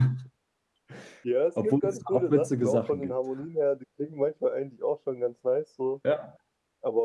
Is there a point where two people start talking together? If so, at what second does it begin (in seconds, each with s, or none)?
1.6 s